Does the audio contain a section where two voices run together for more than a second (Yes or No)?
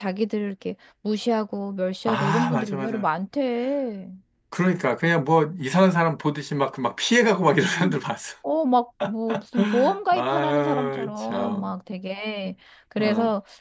Yes